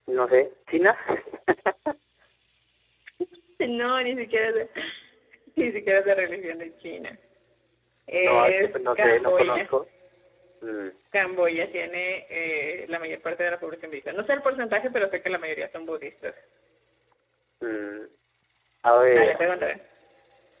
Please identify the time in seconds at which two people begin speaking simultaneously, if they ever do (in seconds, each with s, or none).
8.1 s